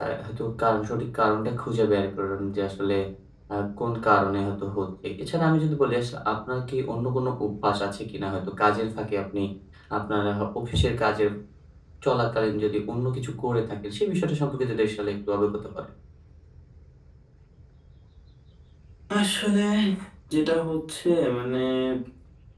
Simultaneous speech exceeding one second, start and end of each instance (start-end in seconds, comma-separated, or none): none